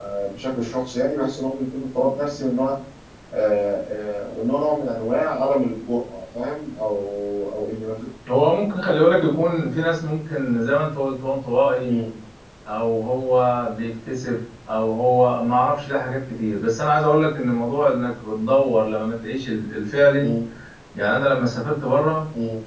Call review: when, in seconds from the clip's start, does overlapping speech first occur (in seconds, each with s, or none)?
none